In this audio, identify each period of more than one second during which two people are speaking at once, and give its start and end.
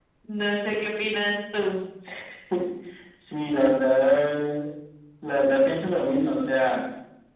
none

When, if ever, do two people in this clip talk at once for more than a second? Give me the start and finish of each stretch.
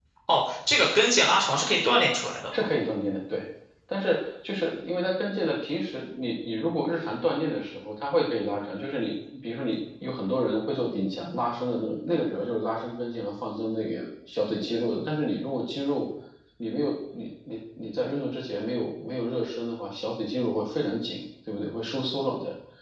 none

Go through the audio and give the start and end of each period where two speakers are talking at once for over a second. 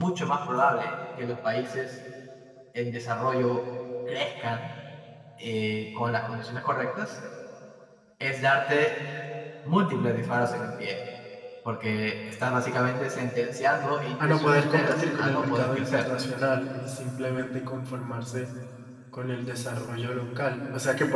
14.2-16.0

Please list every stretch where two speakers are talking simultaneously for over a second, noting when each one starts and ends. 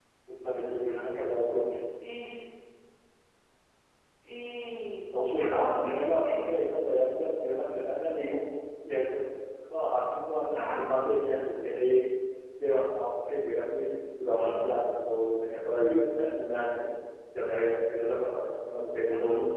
5.1-6.4

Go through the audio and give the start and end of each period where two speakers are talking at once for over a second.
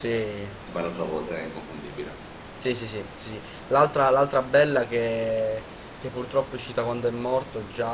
none

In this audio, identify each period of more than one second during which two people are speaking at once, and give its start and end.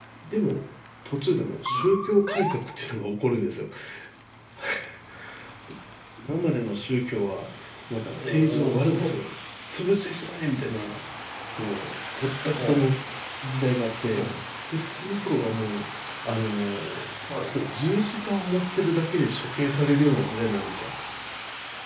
8.1-9.3

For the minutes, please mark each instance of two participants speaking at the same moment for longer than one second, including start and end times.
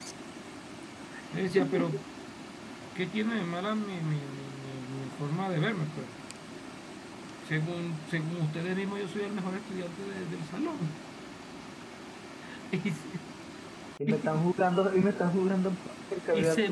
none

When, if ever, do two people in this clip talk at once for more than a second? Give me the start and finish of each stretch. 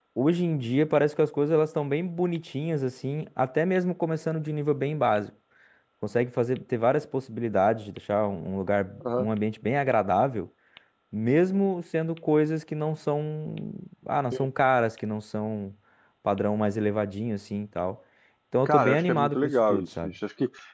18.6-20.1

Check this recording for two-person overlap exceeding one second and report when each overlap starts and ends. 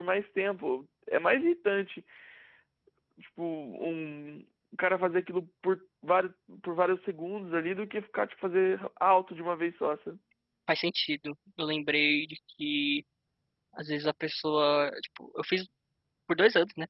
none

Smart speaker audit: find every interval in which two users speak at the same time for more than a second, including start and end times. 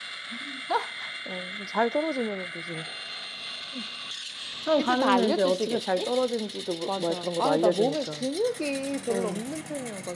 4.8-6.1, 6.9-8.2

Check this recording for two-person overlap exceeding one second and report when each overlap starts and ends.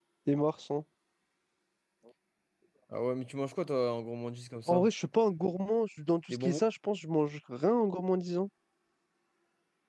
none

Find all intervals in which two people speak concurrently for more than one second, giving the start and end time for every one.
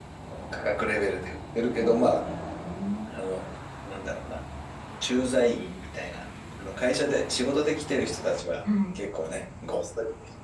none

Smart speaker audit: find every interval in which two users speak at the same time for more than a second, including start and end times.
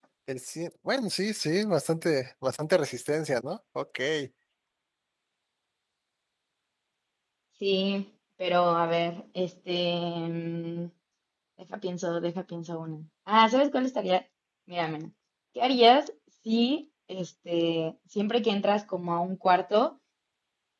none

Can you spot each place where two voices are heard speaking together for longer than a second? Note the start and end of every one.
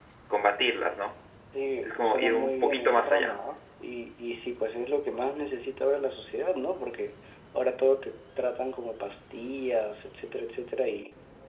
1.8-3.4

